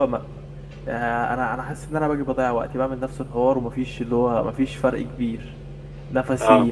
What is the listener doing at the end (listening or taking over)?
listening